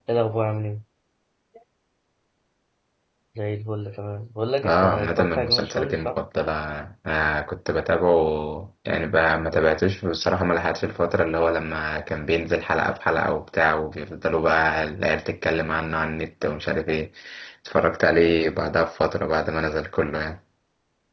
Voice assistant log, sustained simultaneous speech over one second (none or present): present